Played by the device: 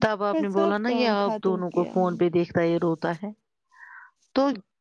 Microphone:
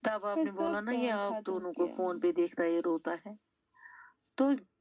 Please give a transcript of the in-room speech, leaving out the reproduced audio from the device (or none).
none